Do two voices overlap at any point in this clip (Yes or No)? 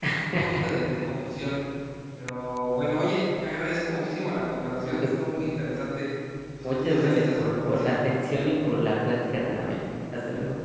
Yes